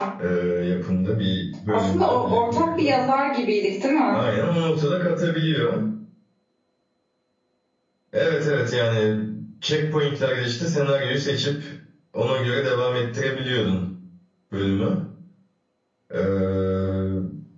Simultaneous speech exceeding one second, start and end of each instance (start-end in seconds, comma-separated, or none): 1.7-3.0